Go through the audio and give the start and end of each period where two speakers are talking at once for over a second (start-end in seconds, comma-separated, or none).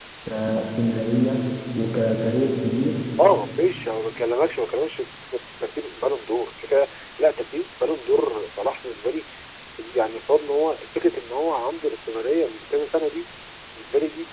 none